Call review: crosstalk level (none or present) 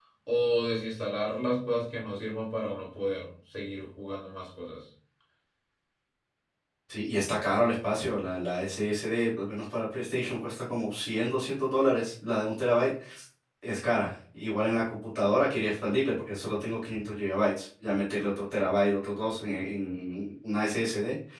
none